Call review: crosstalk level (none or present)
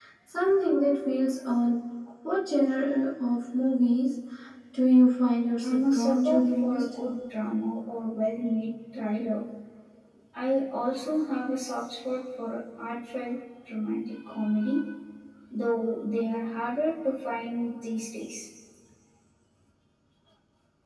present